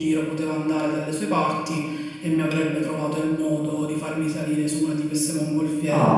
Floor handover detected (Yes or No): No